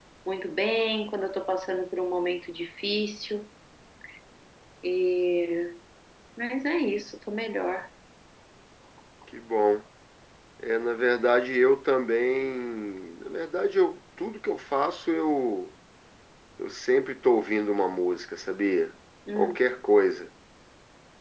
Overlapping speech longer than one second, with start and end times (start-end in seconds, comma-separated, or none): none